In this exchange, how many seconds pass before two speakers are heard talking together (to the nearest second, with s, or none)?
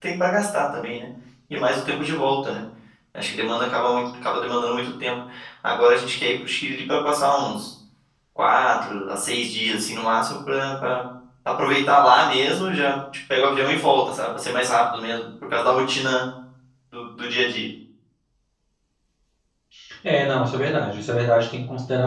none